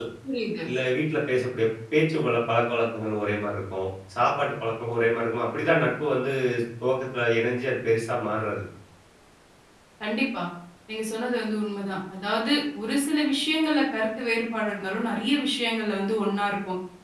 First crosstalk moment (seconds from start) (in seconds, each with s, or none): none